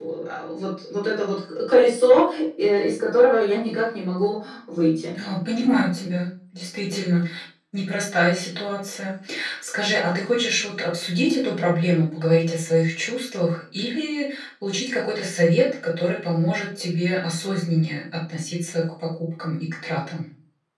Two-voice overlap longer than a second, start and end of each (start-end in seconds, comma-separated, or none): none